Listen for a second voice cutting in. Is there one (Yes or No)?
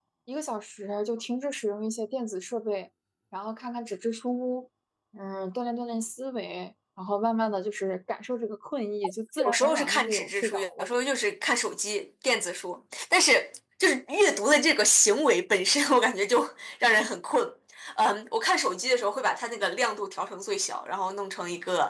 Yes